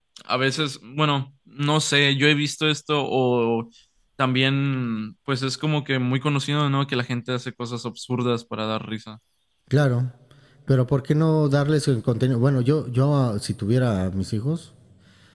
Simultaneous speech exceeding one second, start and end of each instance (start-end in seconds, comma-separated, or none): none